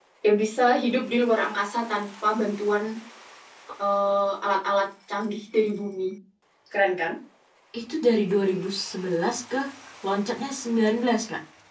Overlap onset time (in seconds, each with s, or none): none